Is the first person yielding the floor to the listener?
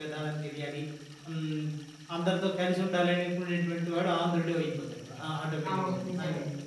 No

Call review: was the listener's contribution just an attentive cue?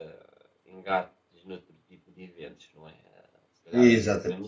Yes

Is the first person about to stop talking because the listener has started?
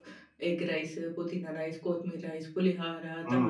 Yes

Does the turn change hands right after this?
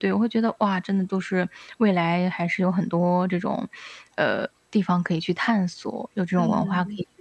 Yes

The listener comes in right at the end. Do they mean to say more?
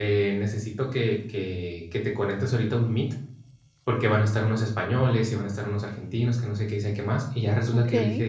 No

